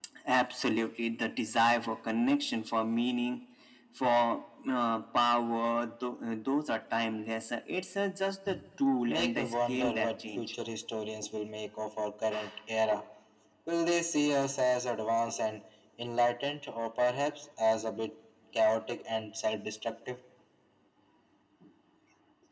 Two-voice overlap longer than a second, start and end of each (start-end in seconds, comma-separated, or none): 9.1-10.5